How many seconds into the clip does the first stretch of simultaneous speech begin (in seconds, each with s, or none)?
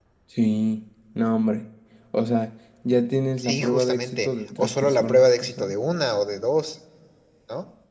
3.4 s